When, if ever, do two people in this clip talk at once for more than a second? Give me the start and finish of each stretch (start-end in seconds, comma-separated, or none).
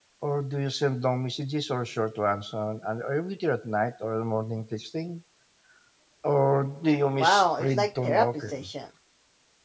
7.2-8.6